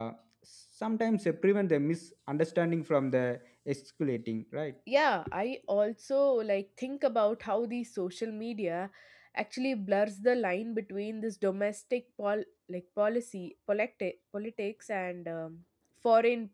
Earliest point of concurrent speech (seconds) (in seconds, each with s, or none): none